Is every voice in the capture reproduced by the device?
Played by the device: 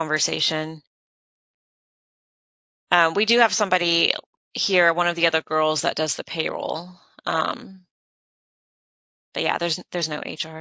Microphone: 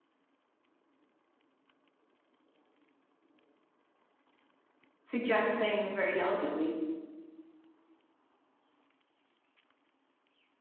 No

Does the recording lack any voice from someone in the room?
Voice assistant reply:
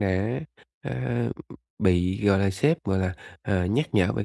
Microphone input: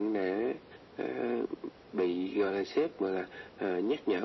Yes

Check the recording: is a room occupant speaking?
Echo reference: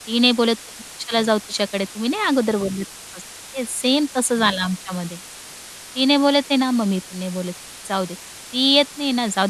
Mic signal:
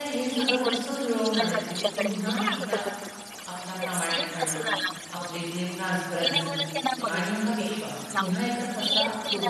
Yes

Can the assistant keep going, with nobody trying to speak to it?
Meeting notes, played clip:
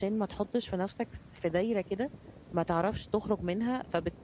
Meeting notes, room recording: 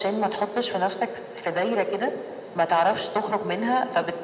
Yes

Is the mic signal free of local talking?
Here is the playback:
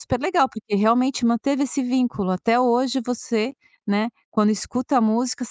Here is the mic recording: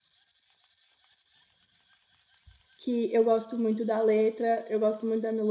No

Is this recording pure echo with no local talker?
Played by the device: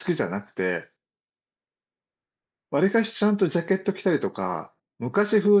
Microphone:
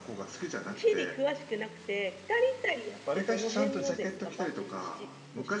No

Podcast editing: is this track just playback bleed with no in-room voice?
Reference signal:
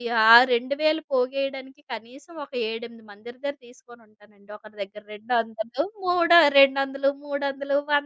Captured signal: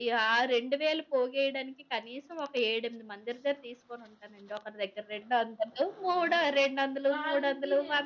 No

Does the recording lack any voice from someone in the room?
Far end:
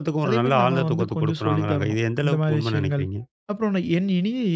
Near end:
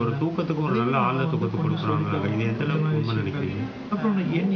No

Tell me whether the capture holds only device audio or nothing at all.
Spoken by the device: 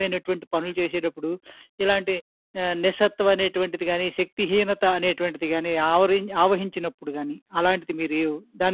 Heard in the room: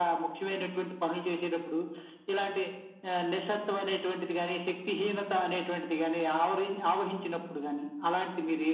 Yes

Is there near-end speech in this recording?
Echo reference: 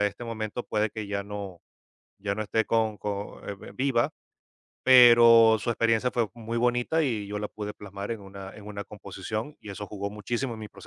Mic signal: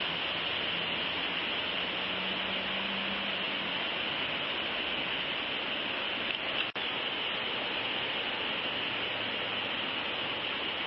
No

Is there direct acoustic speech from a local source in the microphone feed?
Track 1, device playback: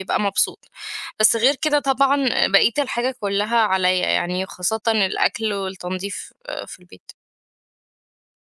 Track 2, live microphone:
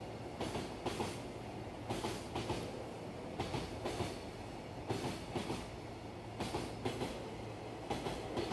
No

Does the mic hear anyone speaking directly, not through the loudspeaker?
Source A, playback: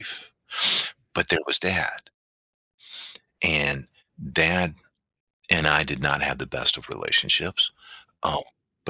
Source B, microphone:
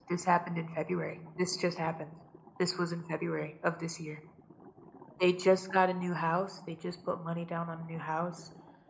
Yes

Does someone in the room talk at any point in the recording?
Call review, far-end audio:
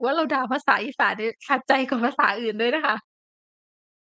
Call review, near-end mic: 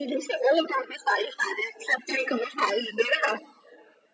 No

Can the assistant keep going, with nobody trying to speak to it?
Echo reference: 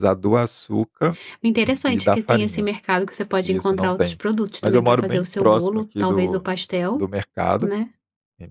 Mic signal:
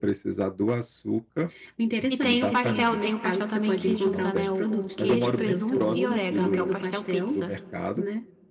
No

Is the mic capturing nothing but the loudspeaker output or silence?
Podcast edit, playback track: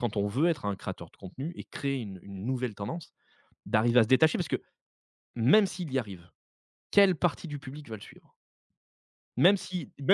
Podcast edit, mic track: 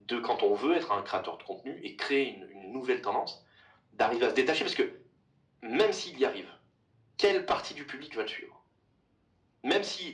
Yes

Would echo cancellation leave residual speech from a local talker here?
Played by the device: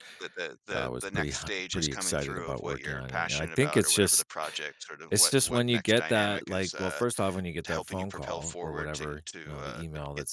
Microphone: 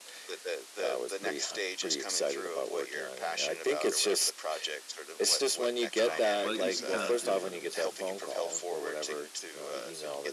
Yes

